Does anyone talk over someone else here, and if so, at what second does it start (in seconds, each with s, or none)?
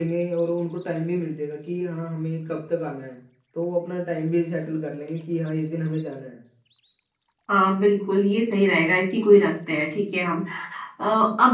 none